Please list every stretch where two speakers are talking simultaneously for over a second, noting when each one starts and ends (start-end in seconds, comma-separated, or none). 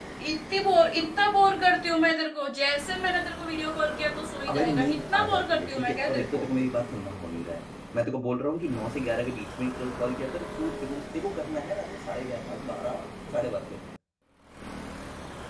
4.5-6.4